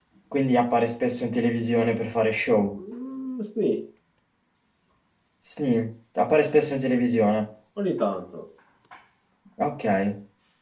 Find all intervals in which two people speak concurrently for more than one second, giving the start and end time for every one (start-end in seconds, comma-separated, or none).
none